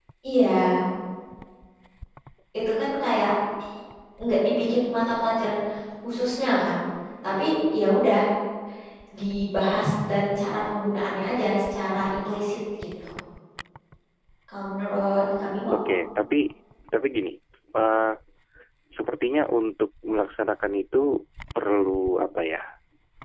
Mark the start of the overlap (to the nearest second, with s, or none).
none